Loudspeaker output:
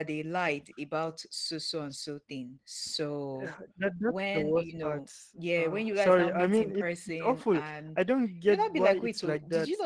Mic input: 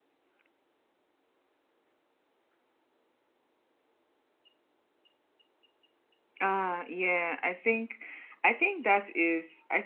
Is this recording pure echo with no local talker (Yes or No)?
No